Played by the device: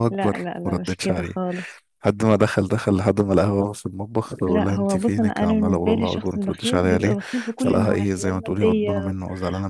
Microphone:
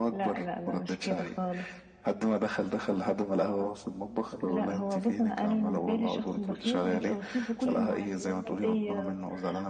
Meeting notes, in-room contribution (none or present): none